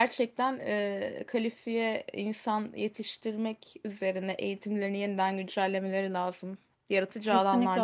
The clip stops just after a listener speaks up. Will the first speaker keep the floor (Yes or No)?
No